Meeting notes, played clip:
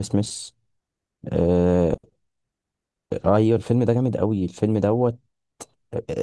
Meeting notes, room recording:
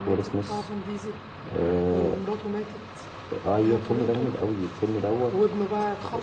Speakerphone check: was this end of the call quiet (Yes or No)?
No